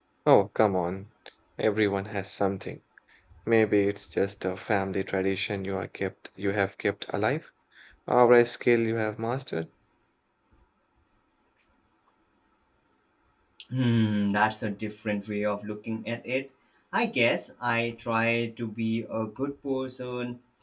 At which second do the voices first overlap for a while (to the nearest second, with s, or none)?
none